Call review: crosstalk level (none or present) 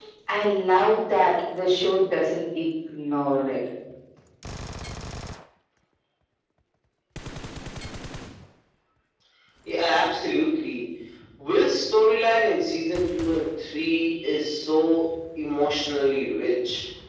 none